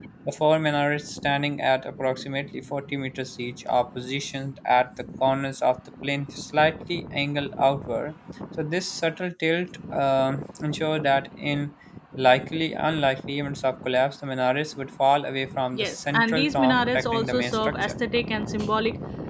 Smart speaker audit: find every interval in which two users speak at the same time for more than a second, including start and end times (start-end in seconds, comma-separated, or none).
15.7-17.9